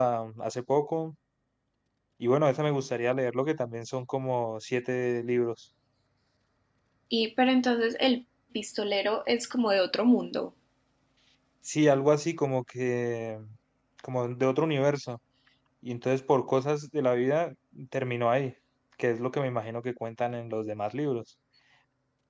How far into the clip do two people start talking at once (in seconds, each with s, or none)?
none